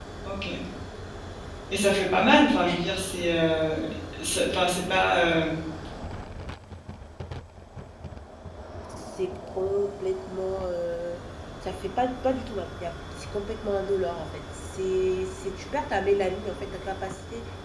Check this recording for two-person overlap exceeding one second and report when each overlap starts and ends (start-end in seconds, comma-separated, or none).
none